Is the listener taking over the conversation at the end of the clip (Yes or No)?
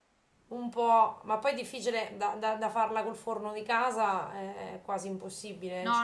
Yes